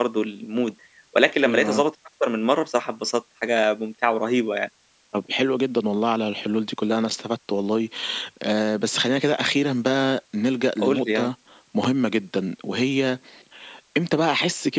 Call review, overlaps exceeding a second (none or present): none